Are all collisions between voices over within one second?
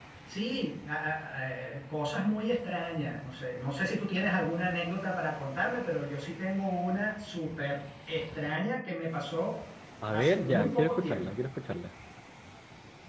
No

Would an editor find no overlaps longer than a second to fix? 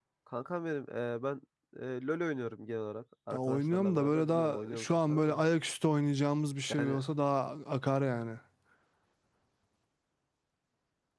No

